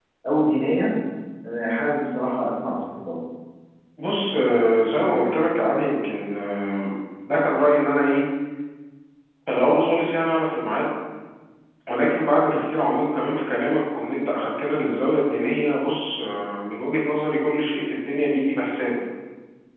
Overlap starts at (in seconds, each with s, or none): none